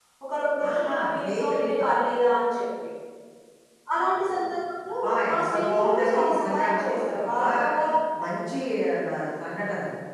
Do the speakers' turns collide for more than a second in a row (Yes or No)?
Yes